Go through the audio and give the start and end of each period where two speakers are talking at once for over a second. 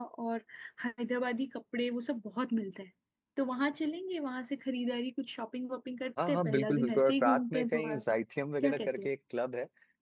6.3-8.2

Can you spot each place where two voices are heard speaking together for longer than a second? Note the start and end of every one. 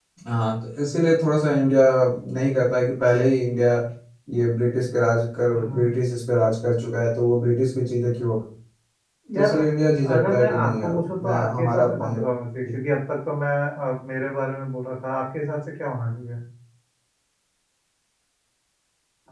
10.1-12.2

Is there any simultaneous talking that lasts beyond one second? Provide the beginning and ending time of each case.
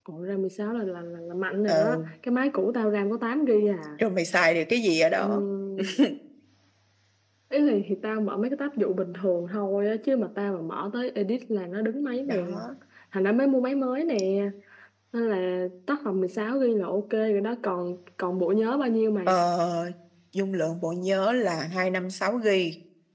none

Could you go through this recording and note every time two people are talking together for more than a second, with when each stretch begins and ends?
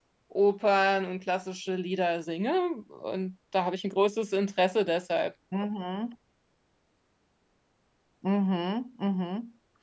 none

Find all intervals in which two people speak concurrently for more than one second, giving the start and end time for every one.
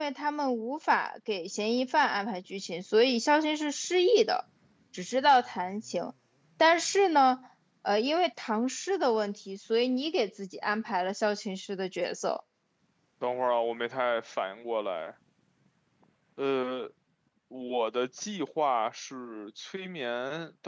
none

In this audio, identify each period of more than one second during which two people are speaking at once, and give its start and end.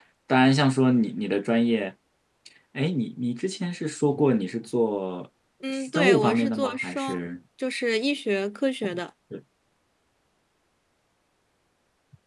6.0-7.2

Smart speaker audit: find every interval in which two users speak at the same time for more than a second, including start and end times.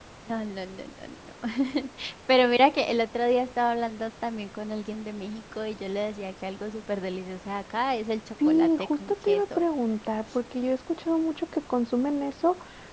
8.4-9.7

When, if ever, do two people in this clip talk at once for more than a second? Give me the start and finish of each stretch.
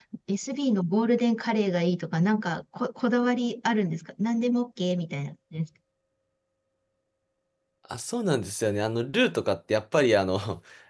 none

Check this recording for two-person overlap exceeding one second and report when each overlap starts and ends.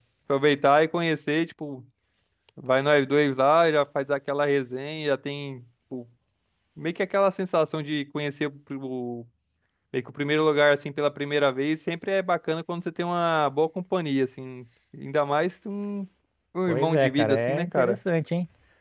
16.7-18.0

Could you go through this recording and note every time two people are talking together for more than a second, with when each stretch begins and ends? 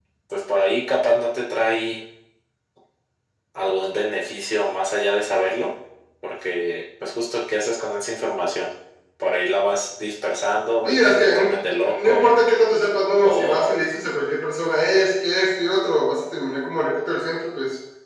10.8-12.3

